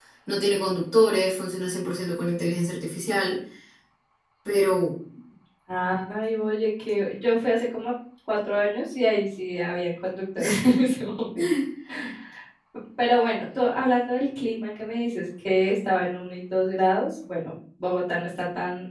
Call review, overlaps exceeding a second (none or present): none